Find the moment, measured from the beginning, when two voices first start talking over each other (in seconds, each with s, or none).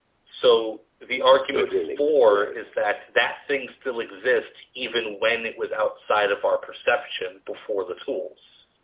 1.4 s